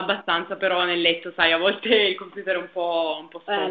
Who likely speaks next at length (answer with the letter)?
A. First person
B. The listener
B